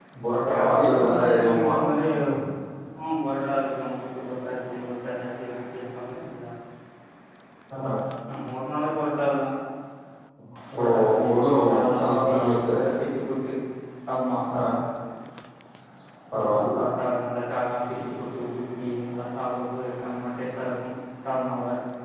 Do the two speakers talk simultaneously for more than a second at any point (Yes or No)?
Yes